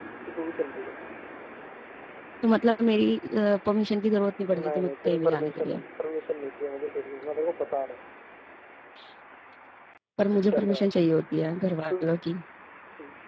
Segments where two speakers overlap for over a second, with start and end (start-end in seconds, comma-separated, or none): 4.5-5.8